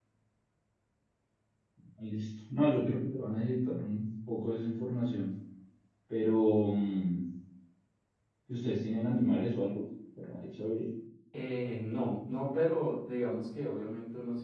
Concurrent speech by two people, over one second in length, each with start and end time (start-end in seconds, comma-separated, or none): none